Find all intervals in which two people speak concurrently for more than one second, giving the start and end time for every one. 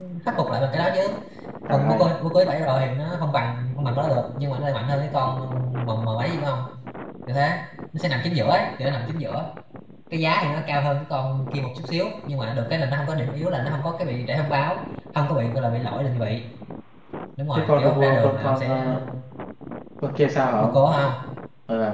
17.5-18.9

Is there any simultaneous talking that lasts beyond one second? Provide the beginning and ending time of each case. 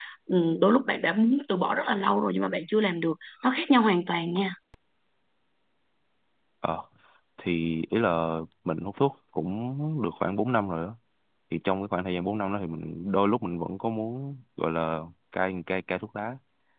none

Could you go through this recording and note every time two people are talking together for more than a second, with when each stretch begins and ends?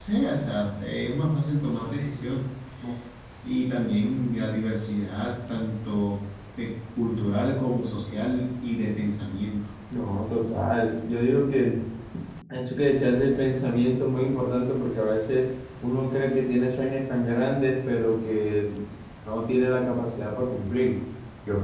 none

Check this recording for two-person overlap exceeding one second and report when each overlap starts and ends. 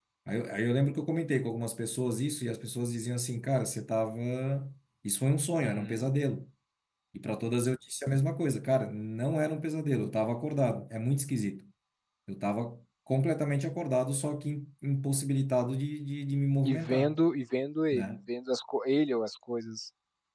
none

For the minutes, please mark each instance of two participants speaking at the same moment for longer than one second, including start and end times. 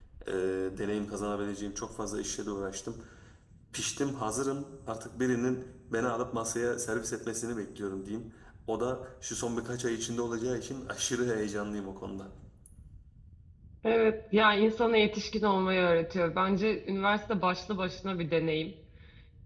none

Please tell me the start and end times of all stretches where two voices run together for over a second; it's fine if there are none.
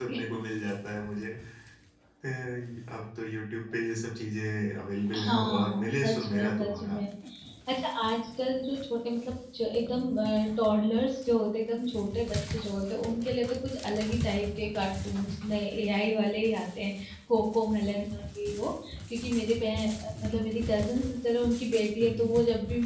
5.2-7.0

